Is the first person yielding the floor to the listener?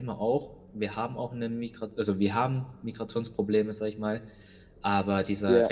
No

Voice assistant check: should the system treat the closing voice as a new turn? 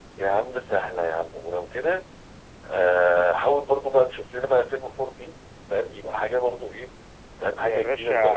Yes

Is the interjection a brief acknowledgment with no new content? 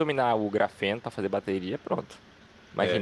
Yes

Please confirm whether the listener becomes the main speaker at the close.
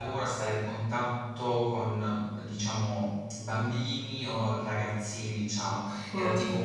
No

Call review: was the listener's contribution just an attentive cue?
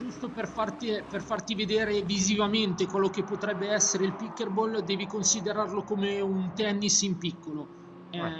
Yes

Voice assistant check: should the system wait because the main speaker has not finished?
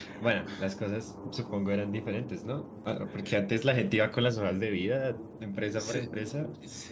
No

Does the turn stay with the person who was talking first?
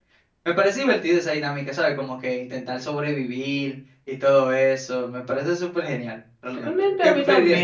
No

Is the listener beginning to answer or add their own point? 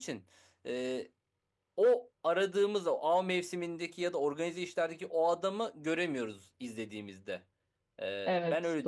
Yes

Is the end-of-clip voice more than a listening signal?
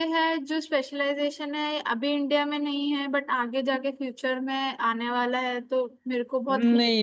Yes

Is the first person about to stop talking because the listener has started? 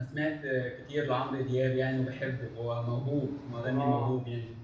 Yes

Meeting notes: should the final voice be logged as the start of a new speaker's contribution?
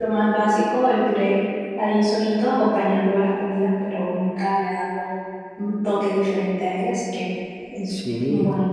Yes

